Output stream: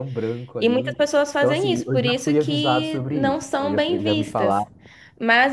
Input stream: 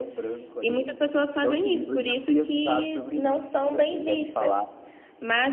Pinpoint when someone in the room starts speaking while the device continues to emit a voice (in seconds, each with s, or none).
none